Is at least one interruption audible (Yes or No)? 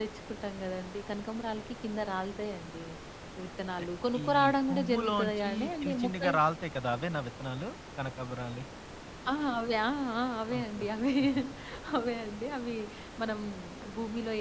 Yes